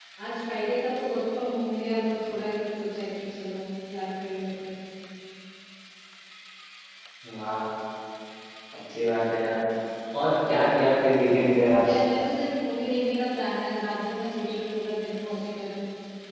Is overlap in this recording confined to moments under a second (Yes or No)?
Yes